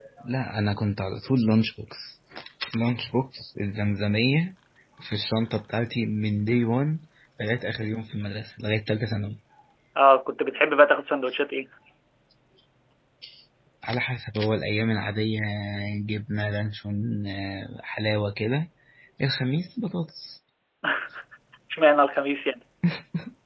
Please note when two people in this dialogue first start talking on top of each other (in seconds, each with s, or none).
none